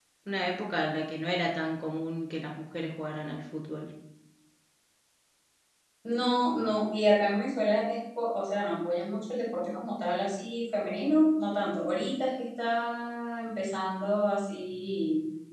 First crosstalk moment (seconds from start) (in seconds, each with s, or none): none